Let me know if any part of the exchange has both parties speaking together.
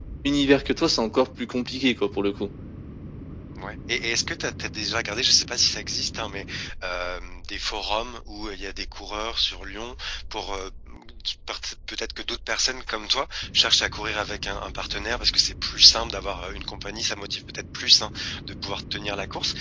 No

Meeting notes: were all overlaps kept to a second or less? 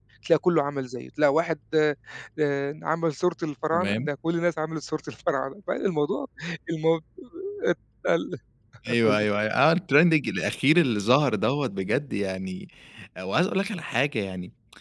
Yes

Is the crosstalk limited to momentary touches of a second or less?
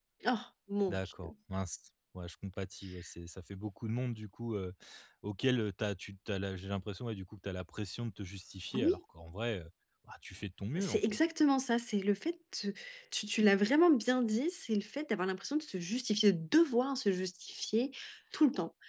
Yes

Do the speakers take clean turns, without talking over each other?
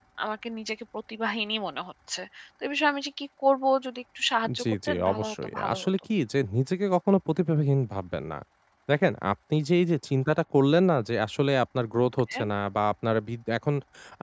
No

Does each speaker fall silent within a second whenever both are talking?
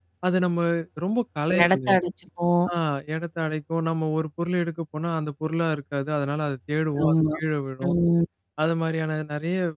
Yes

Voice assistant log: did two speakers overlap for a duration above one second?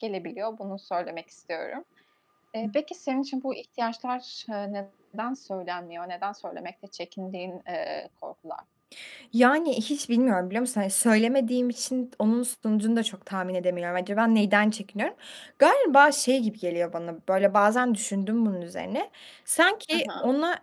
No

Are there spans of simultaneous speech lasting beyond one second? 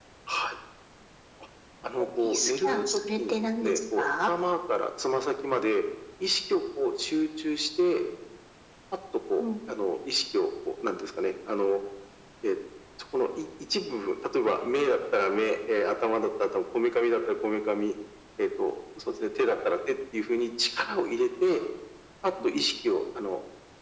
Yes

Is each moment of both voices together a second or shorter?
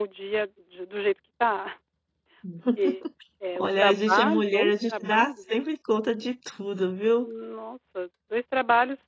No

